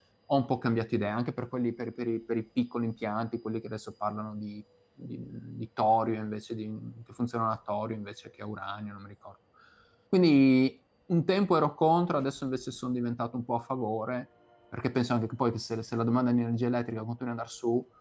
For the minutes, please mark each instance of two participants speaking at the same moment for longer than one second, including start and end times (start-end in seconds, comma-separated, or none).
none